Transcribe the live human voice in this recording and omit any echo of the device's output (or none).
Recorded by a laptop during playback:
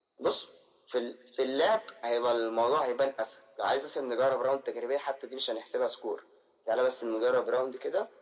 none